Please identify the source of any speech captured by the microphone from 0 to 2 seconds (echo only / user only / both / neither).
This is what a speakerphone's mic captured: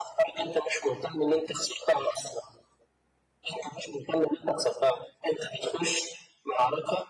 echo only